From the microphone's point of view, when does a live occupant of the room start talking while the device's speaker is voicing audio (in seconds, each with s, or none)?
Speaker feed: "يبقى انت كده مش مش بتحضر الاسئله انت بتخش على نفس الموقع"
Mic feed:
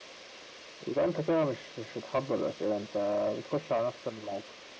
none